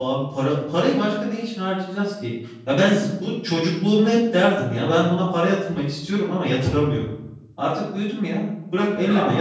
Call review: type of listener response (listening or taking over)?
taking over